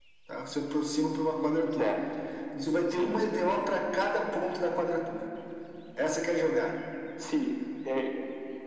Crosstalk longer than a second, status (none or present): none